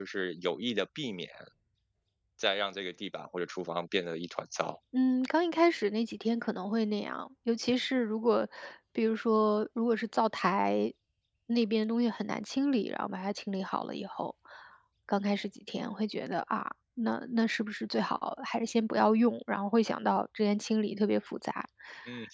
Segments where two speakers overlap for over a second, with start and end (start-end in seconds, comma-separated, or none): none